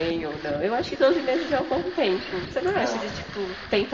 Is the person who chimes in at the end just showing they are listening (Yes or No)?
Yes